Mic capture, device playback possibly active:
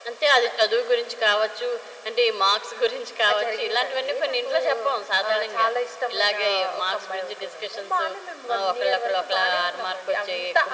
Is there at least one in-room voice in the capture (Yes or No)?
No